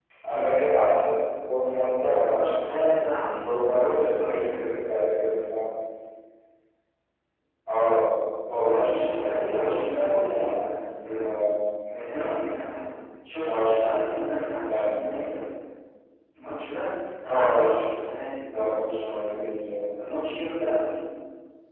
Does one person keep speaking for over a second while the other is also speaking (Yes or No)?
Yes